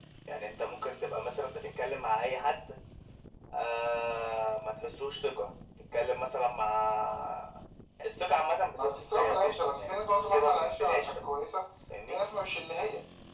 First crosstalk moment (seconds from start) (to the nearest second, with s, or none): 9 s